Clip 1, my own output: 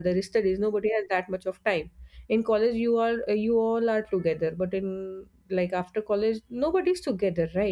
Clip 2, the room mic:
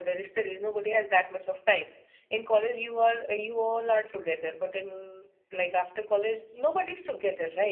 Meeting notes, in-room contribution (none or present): none